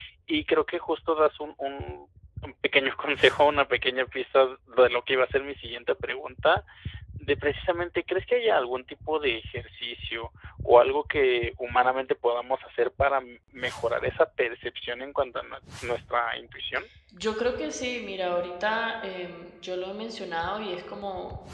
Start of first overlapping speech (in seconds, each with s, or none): none